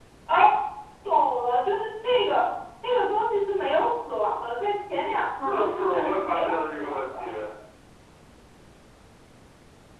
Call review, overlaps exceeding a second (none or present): present